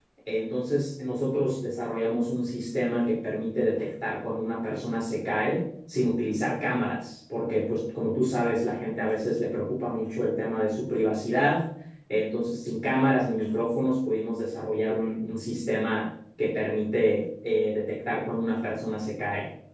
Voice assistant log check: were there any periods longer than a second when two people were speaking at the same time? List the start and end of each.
none

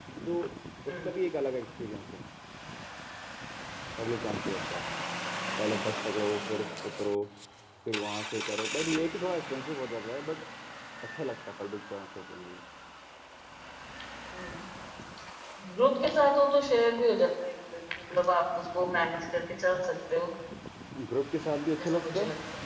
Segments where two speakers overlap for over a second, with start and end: none

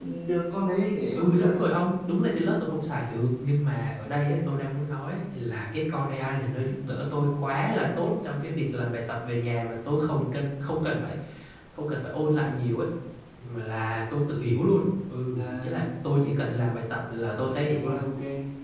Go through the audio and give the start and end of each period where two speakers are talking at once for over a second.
none

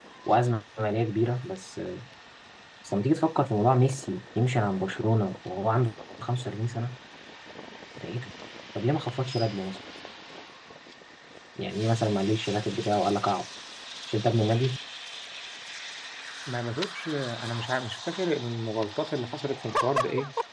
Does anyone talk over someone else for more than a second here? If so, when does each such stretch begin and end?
none

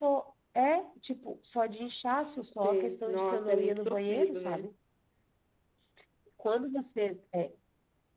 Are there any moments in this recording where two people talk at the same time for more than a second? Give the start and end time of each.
2.6-4.6

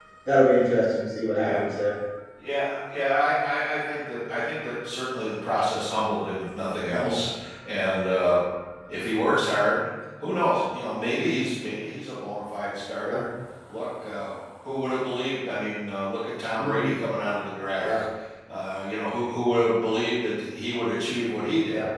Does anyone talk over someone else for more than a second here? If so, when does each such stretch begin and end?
none

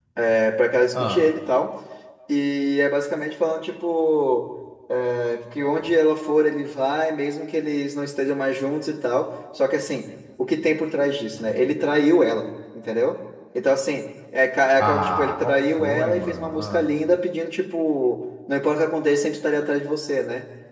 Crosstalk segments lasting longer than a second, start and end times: 14.8-16.8

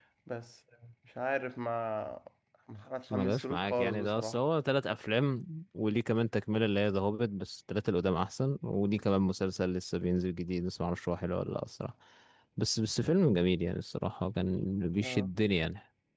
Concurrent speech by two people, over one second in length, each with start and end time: 3.1-4.4

